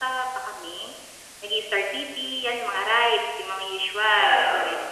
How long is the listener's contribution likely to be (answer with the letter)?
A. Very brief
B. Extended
A